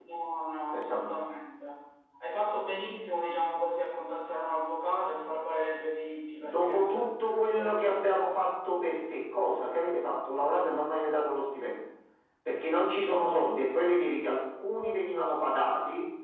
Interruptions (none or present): present